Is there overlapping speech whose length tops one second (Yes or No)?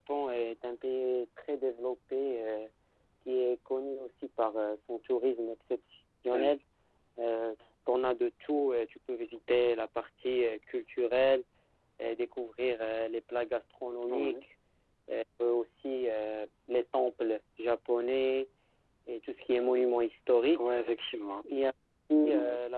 No